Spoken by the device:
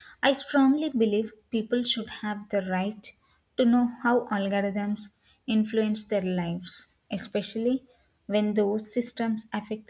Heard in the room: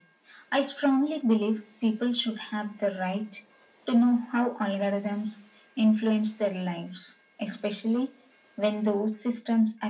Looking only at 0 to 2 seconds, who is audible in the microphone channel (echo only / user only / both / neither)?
echo only